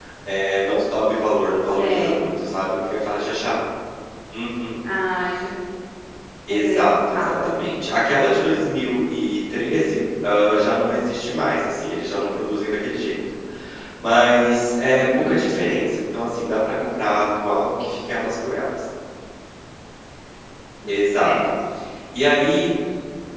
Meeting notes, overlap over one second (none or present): present